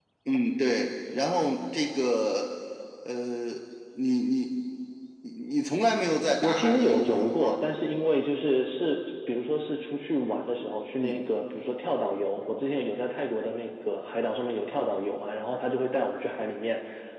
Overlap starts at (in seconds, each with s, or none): 6.4 s